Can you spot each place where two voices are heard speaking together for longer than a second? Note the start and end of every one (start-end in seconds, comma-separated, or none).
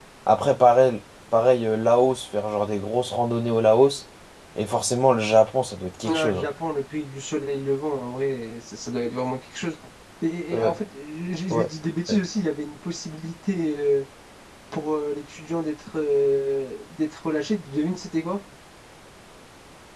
none